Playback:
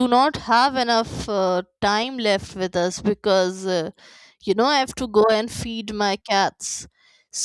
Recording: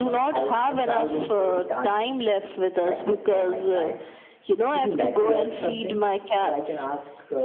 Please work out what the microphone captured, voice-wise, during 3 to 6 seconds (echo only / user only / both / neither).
both